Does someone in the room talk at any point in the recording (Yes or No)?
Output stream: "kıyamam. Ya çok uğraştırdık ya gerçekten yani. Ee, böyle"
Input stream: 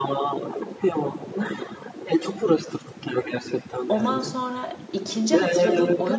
Yes